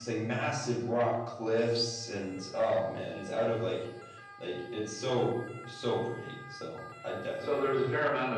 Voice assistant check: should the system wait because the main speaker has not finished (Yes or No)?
No